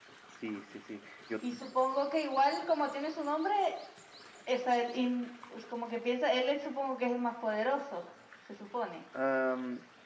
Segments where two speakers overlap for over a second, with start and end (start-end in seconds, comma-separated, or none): none